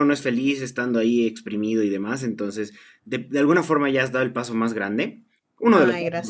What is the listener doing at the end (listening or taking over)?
listening